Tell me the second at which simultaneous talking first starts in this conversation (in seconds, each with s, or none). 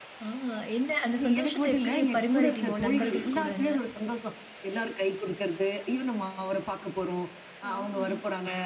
1.4 s